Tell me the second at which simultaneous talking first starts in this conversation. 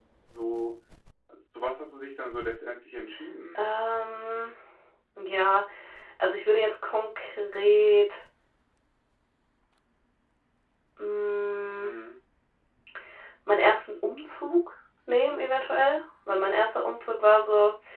none

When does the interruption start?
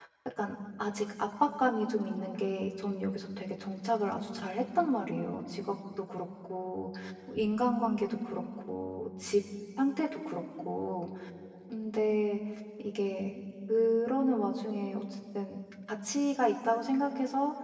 none

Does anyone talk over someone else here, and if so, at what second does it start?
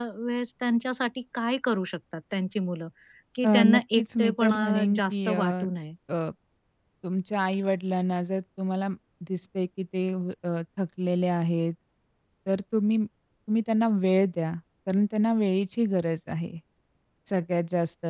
3.4 s

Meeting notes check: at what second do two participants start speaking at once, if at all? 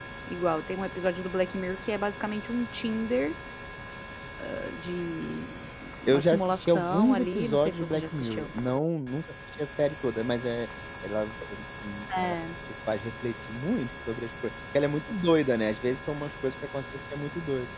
6.1 s

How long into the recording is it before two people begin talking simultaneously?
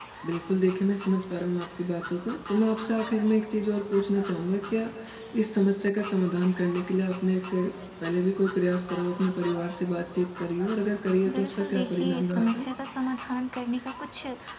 11.3 s

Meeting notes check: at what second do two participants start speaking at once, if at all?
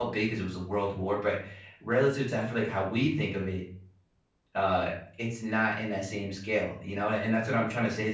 none

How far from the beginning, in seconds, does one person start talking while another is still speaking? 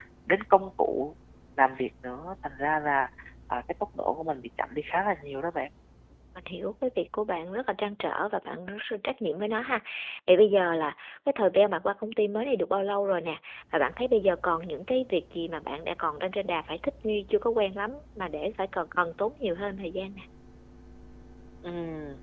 none

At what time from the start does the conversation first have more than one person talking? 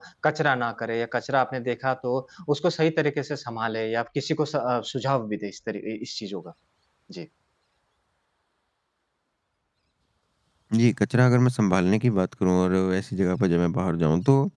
none

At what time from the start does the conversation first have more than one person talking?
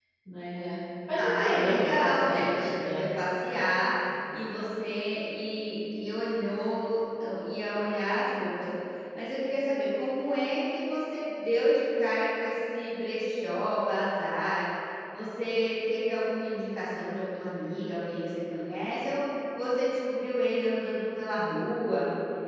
1.1 s

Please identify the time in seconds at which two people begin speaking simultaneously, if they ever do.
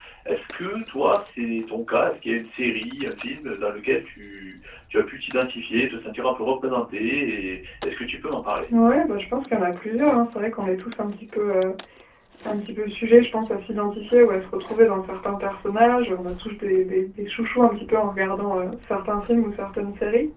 none

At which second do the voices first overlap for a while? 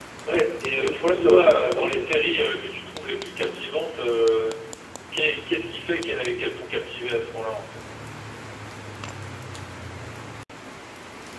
0.7 s

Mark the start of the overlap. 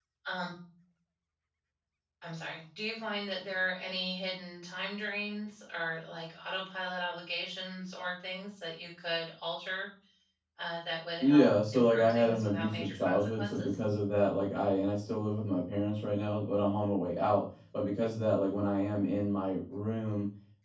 11.2 s

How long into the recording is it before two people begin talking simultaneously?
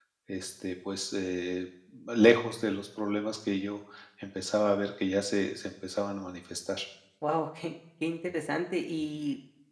none

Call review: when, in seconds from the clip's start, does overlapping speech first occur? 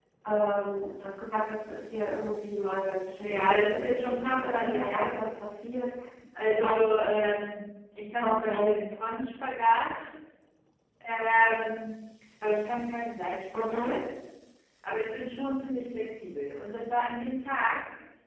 3.2 s

